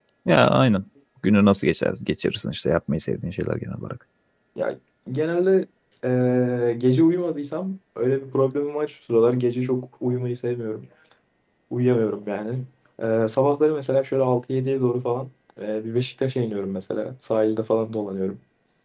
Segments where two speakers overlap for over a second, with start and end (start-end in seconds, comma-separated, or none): none